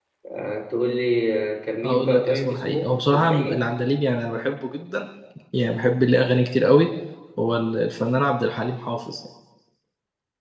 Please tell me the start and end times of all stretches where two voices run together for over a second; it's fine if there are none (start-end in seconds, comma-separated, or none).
1.8-3.7